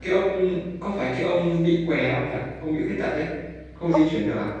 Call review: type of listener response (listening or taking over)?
taking over